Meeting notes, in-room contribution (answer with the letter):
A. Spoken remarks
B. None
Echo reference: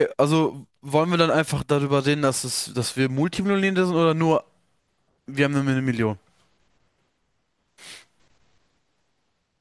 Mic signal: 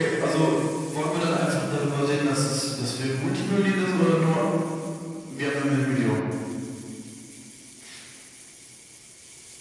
B